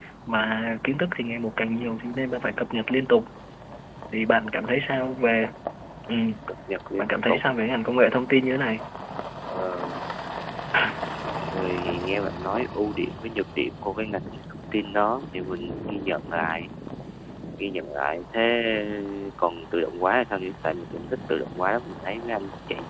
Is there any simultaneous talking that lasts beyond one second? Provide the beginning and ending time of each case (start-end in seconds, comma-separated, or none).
none